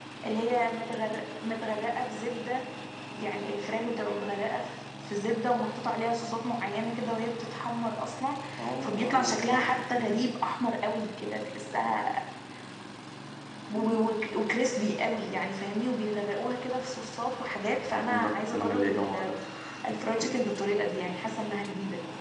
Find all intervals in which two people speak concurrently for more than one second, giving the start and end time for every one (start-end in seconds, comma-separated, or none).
8.8-10.1, 17.9-19.3